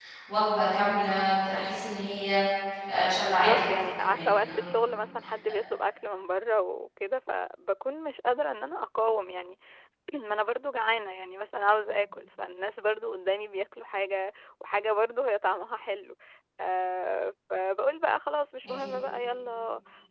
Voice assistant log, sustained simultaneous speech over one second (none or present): present